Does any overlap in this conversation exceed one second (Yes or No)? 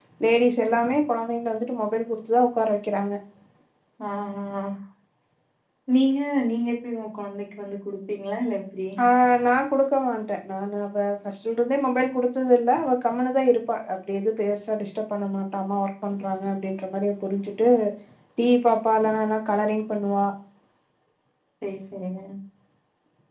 No